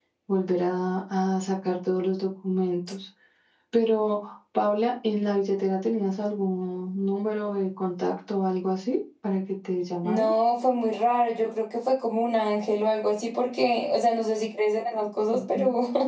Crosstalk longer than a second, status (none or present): none